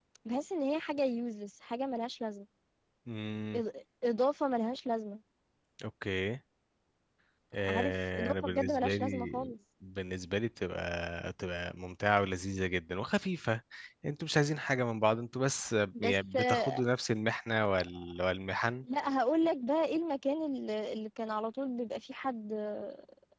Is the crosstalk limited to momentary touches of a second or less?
No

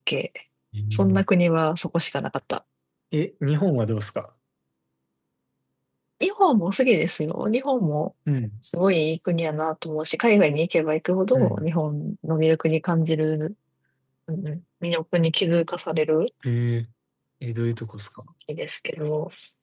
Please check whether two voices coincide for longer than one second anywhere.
No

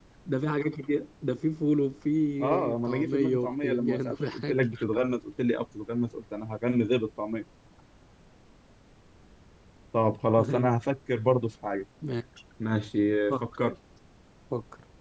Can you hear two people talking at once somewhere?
Yes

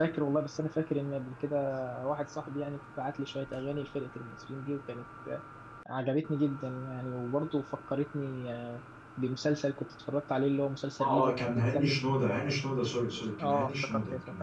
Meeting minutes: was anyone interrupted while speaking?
Yes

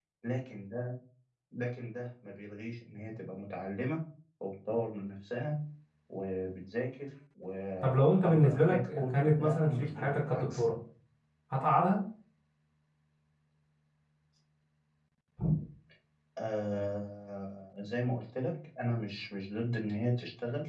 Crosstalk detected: Yes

